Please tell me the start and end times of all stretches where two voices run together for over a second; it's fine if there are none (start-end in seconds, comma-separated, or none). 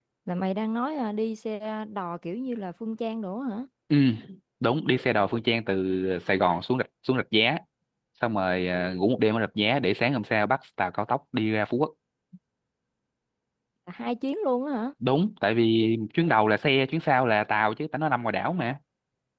none